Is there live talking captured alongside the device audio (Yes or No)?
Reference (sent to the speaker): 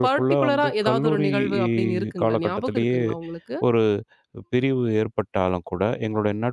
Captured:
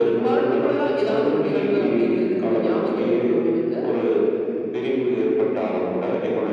No